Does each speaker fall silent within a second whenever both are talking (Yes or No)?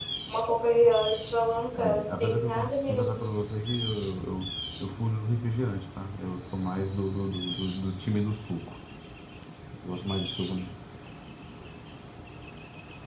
No